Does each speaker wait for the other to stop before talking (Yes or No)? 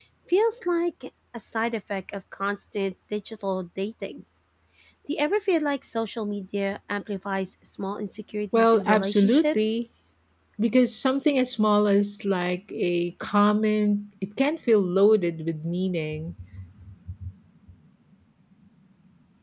No